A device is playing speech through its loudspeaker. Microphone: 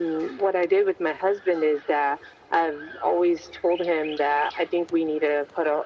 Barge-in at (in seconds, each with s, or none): none